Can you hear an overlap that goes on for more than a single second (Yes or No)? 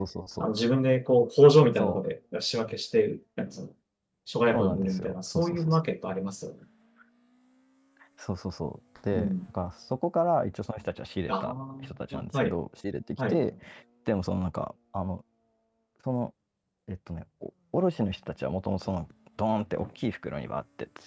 Yes